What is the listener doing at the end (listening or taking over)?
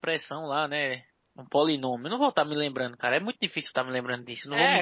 taking over